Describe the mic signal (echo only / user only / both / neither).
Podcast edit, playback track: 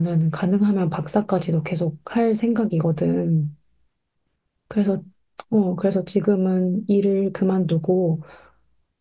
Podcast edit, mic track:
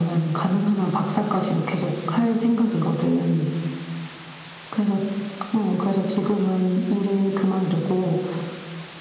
echo only